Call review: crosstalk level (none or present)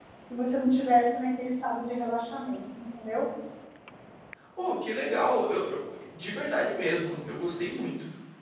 none